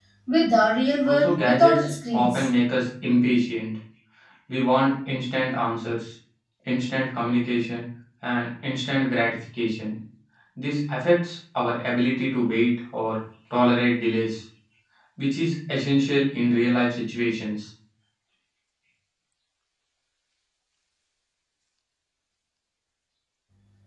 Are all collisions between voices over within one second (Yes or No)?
No